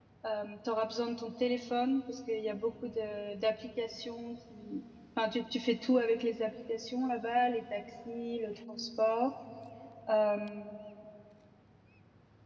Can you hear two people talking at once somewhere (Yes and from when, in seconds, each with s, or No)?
No